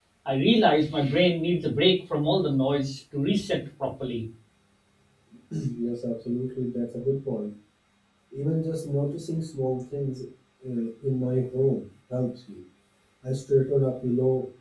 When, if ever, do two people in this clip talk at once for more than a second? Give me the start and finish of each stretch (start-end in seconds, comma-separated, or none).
none